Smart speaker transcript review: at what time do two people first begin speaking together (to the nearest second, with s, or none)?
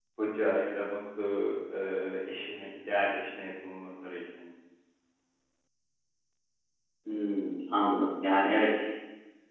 none